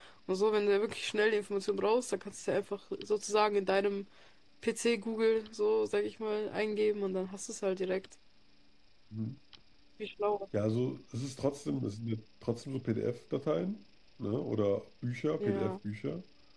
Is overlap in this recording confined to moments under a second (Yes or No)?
Yes